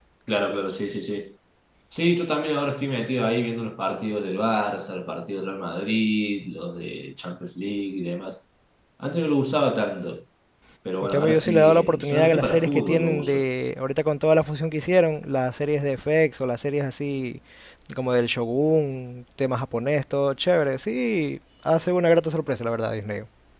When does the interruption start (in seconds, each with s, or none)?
11.0 s